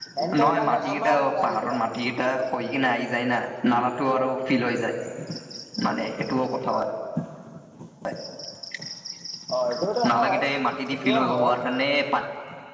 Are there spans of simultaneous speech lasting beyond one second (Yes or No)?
Yes